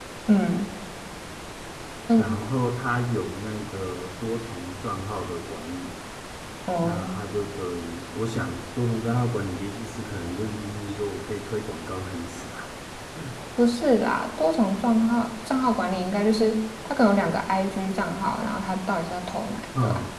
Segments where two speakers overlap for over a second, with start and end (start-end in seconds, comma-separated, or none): none